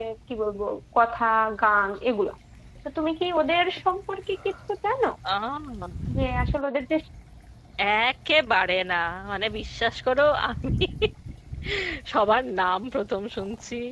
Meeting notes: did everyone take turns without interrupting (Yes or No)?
Yes